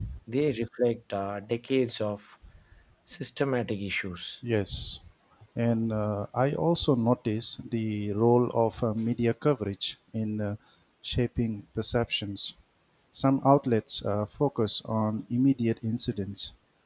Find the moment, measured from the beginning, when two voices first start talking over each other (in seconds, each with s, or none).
none